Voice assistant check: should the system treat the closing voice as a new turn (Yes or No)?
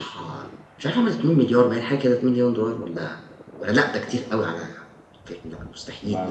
Yes